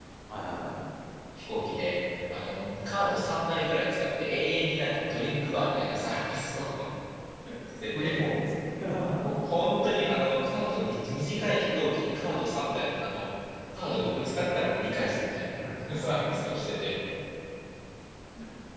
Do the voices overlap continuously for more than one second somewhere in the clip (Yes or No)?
No